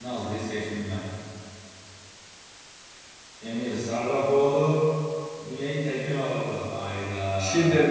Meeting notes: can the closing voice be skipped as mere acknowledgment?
No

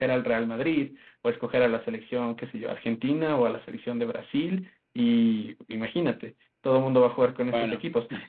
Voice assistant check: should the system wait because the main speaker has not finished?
Yes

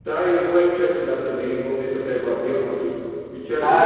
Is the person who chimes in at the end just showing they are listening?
No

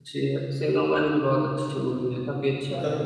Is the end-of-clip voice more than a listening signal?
Yes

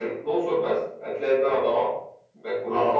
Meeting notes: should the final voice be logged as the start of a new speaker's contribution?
No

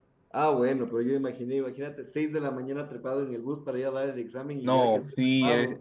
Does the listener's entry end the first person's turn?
Yes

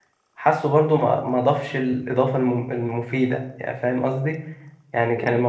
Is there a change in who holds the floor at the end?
No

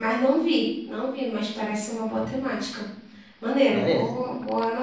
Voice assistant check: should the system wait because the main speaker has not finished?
Yes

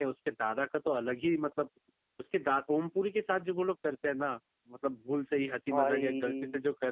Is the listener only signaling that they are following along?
Yes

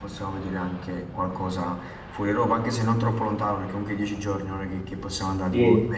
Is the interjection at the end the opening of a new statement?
Yes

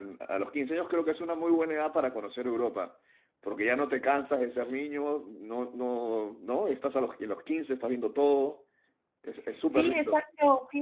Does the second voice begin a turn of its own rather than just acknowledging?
Yes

